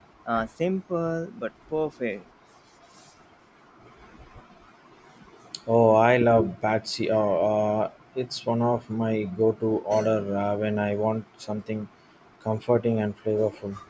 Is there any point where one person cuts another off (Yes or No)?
No